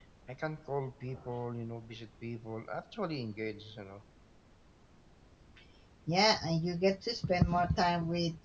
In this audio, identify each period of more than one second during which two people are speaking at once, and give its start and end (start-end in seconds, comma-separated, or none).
none